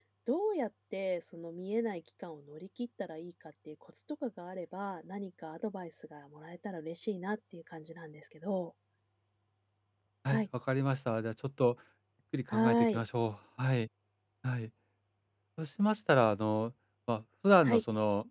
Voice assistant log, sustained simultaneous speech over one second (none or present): none